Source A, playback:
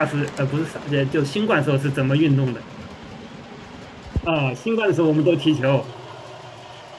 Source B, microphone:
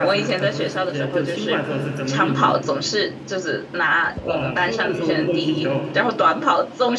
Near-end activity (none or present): present